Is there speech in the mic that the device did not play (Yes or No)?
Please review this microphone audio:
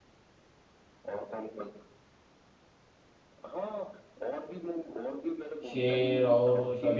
Yes